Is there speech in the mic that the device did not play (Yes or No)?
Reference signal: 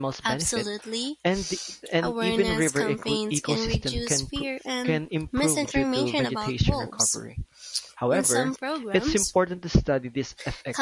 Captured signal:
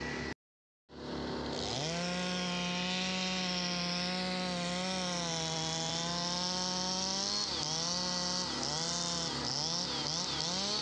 No